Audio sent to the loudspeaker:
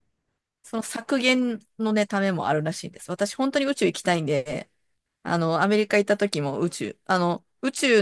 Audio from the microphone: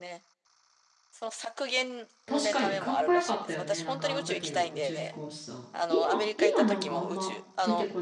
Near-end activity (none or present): present